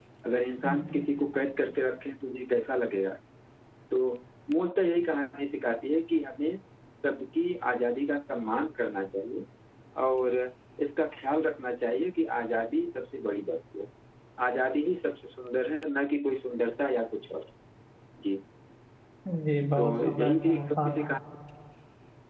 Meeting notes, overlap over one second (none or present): present